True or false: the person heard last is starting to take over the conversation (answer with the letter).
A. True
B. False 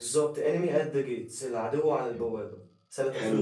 A